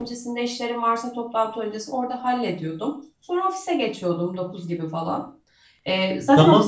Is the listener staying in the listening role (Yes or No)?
No